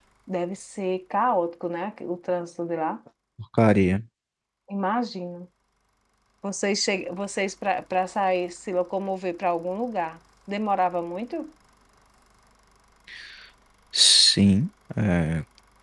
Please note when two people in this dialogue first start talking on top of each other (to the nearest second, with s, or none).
none